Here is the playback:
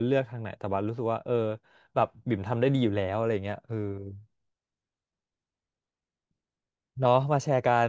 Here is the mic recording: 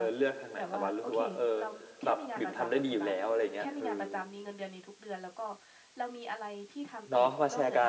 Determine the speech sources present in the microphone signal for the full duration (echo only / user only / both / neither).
both